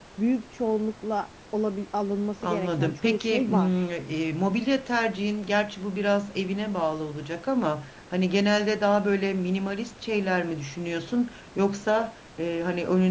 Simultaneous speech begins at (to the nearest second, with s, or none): 2 s